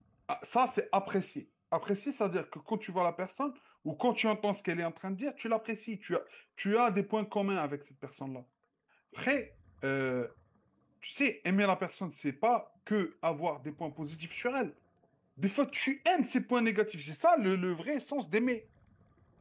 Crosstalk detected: No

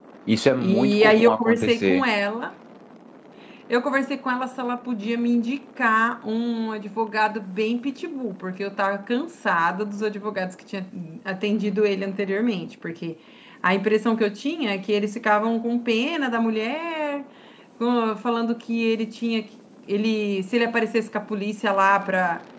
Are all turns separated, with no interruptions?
No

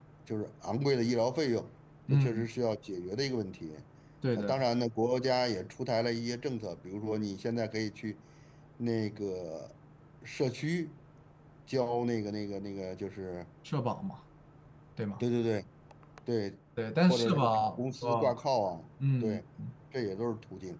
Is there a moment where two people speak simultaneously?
Yes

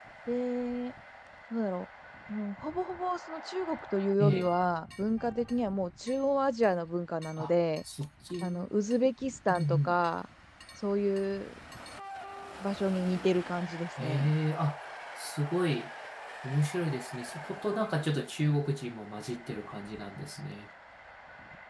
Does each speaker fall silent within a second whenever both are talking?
Yes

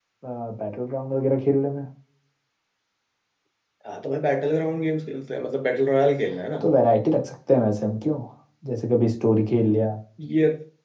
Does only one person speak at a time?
Yes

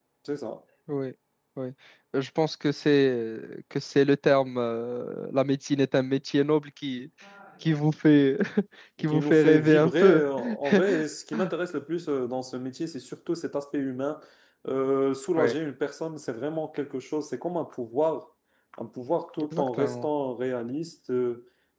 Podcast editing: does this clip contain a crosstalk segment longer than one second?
Yes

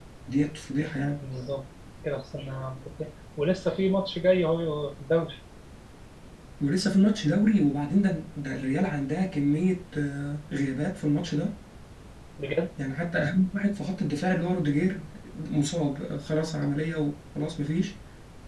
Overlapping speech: No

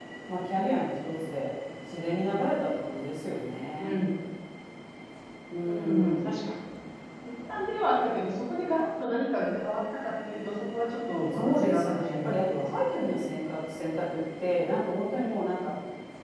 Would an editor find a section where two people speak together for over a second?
Yes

